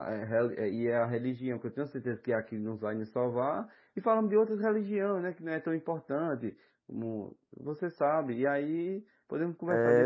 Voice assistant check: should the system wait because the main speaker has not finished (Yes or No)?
No